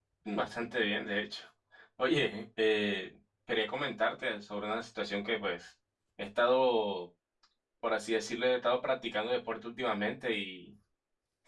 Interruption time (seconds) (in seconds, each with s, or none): none